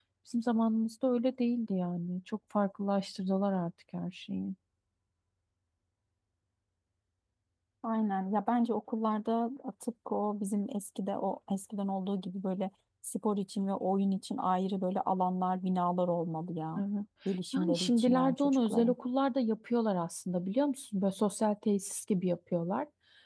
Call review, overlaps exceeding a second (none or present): present